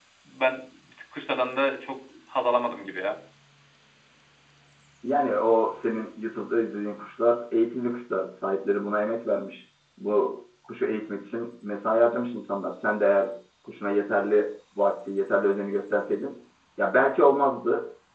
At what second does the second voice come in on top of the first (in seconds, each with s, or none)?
none